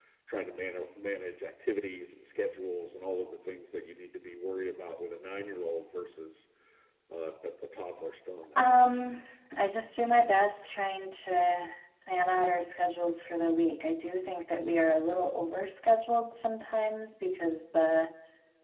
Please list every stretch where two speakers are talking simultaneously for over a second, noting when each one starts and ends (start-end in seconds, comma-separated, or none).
none